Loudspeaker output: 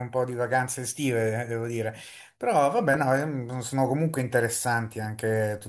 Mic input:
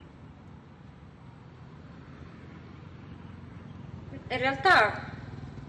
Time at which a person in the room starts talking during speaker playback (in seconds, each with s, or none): 4.1 s